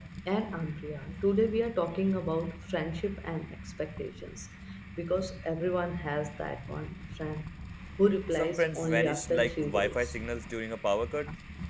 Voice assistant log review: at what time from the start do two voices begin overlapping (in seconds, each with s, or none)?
8.3 s